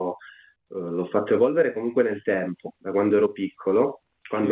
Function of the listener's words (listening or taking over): listening